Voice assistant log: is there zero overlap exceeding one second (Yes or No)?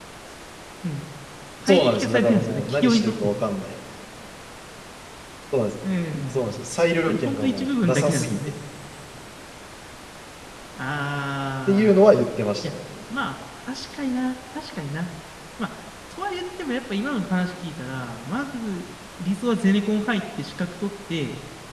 No